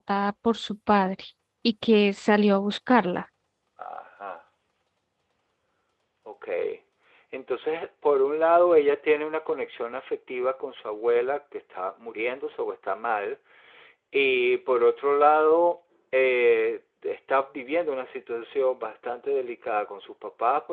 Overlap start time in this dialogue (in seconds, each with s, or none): none